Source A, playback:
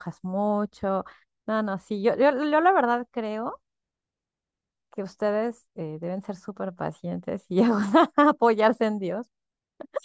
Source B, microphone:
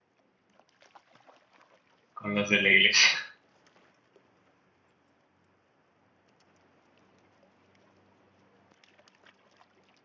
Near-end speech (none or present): present